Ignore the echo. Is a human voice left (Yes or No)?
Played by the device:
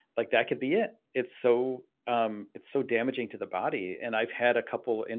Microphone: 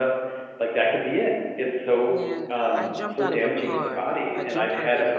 Yes